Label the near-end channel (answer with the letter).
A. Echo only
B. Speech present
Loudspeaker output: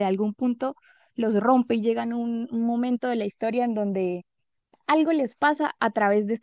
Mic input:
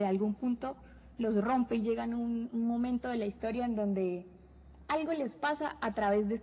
A